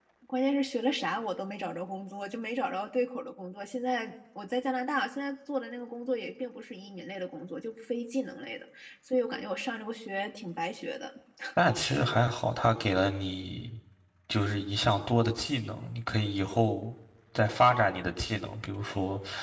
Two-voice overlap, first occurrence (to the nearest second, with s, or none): none